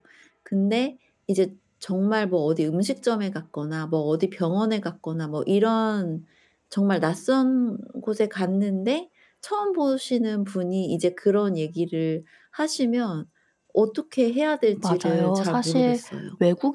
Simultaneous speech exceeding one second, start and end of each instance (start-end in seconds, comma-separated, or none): 14.6-16.0